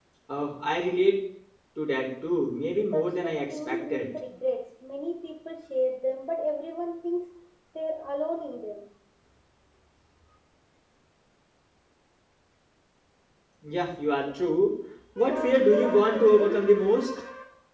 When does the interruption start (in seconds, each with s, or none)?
2.8 s